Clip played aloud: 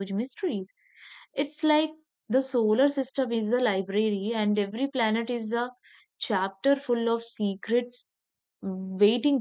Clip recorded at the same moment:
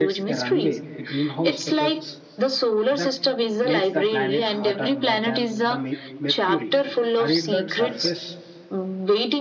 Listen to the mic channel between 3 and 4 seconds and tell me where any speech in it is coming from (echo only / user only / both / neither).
both